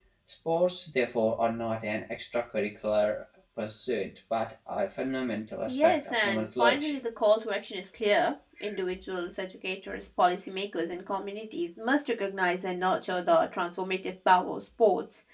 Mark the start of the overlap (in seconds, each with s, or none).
5.7 s